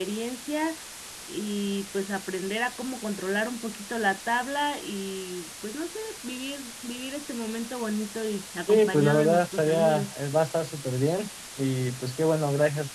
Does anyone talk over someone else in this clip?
Yes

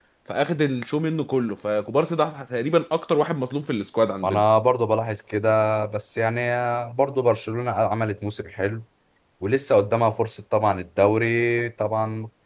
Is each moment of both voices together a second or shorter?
Yes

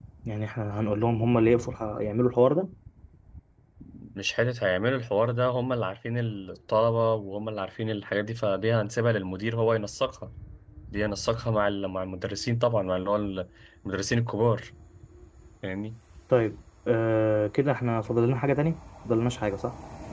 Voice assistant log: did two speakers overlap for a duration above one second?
No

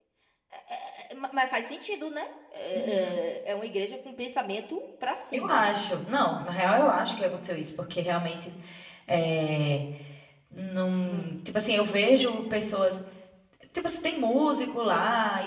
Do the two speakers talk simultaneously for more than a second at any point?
No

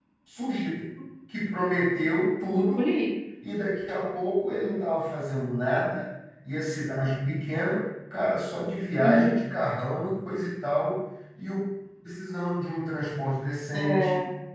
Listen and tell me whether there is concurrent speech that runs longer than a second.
No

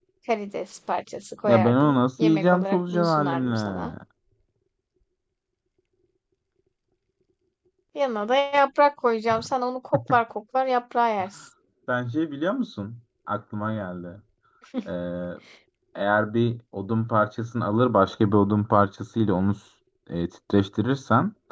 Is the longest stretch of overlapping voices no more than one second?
No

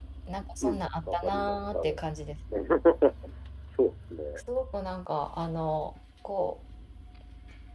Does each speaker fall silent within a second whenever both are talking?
No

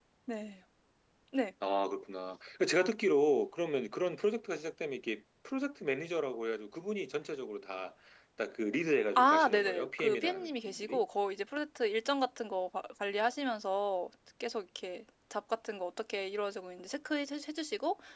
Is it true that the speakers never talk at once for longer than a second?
No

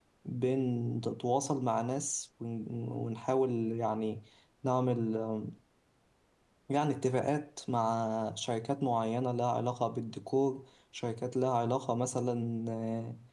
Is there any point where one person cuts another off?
No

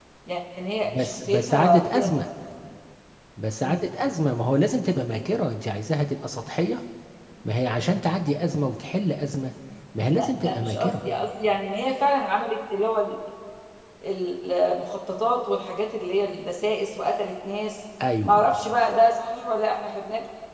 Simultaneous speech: Yes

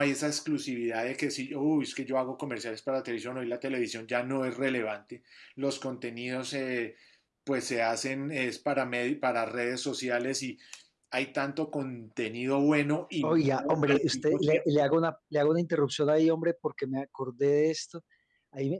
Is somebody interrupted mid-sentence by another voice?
Yes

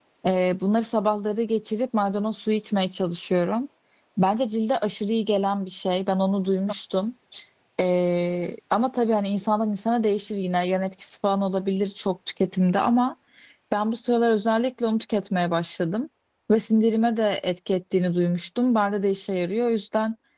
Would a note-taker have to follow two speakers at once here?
No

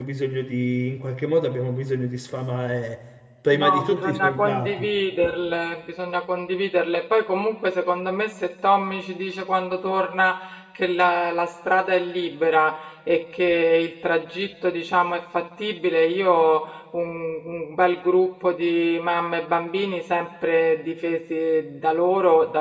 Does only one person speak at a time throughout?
No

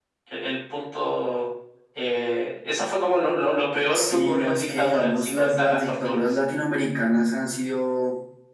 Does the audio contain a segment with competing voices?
Yes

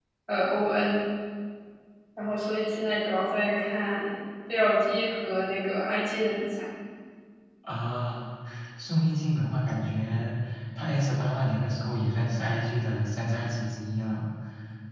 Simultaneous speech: No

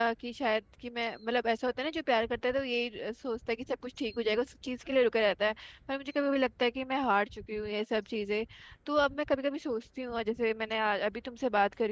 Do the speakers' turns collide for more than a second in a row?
No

